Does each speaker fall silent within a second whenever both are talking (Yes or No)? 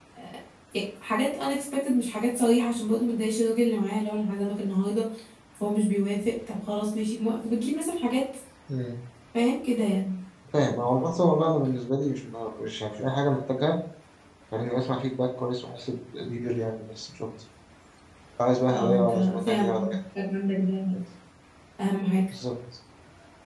No